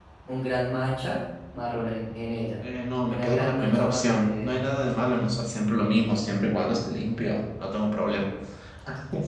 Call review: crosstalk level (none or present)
present